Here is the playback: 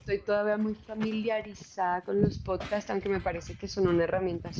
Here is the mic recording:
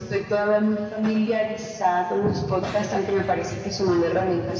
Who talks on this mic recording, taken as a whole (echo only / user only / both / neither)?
echo only